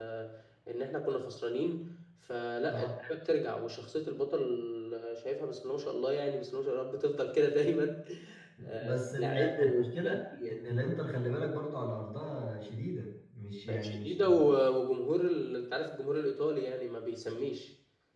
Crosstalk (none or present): present